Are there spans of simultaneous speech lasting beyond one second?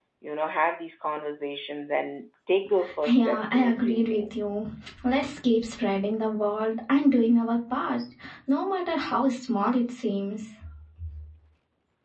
Yes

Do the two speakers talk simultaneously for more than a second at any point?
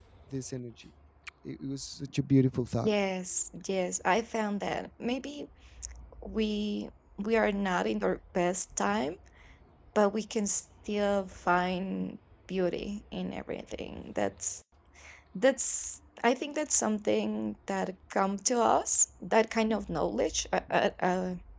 No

